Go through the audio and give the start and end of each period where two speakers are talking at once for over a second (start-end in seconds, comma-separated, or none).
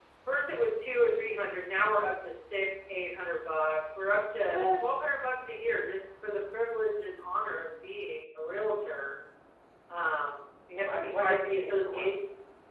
10.9-12.1